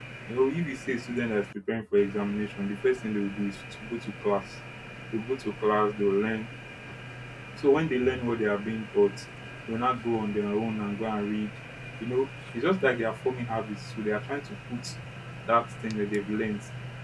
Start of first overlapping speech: none

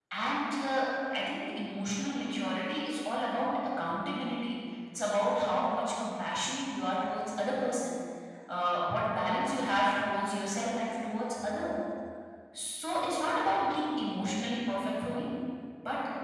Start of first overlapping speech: none

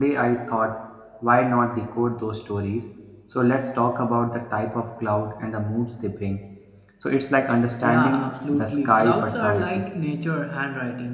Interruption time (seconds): 7.8 s

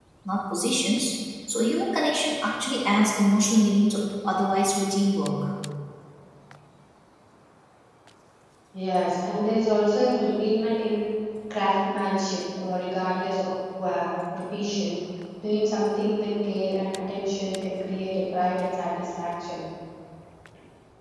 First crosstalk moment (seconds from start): none

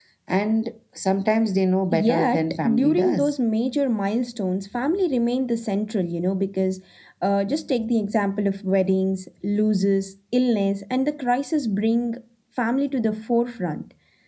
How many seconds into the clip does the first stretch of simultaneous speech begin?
1.9 s

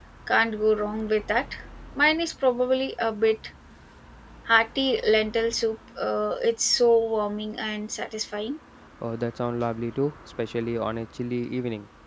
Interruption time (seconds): none

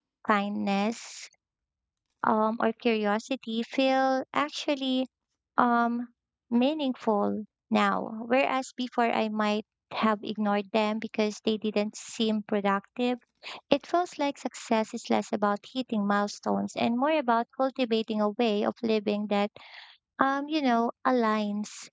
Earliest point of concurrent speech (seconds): none

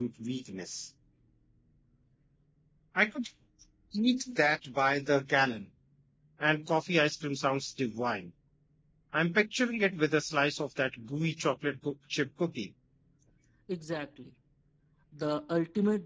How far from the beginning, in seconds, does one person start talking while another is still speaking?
none

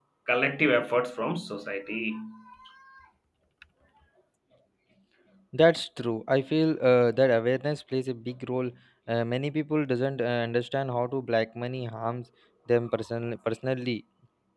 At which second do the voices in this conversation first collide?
none

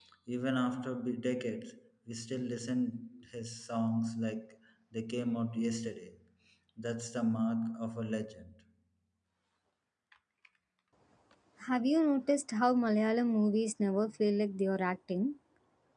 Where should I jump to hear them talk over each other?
none

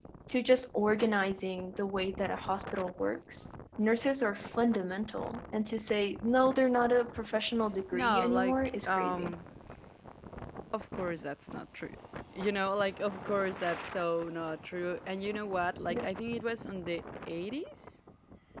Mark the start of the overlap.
7.9 s

